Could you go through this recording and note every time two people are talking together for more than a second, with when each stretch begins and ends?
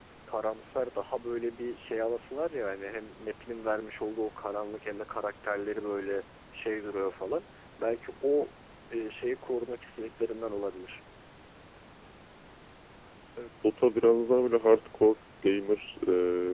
none

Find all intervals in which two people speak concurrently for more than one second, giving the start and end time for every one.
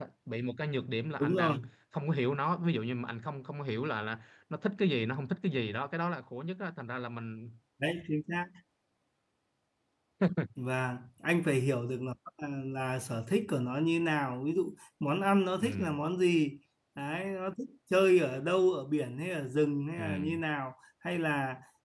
none

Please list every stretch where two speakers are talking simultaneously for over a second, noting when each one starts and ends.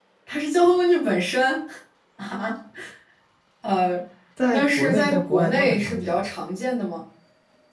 4.5-6.2

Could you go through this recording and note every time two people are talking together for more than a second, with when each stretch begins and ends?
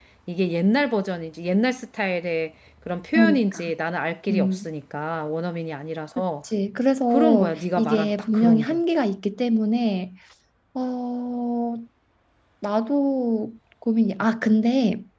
7.1-8.8

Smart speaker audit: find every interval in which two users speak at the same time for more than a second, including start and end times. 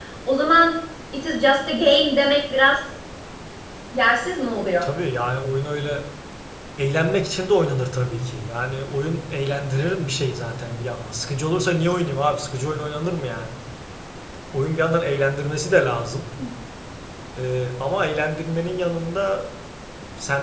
none

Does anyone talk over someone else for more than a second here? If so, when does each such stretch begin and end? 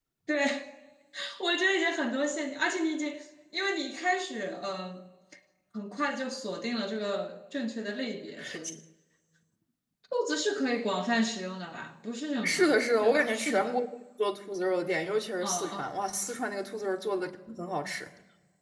12.4-13.8

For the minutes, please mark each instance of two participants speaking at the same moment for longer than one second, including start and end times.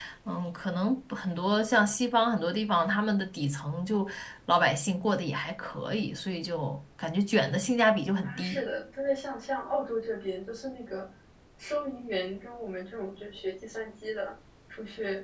none

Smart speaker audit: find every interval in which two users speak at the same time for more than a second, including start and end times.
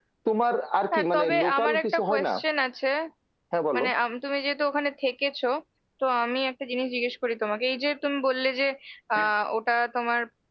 0.9-2.3

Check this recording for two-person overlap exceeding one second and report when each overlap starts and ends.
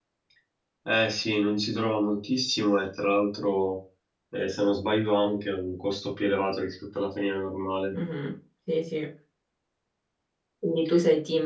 none

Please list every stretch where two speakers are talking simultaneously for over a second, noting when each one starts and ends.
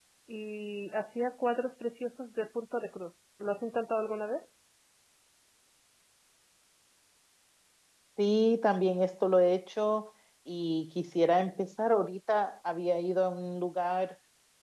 none

